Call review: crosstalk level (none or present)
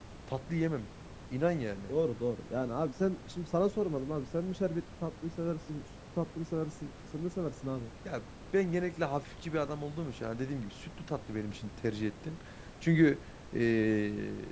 none